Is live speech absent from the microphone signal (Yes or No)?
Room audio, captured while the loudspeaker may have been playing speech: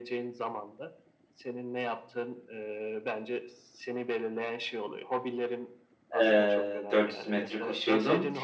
No